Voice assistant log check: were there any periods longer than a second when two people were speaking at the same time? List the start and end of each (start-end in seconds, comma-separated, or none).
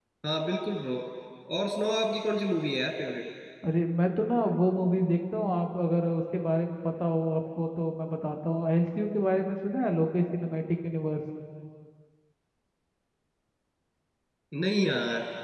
none